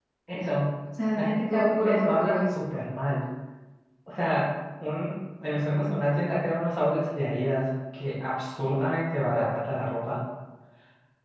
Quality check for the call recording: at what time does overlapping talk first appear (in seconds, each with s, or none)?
1.2 s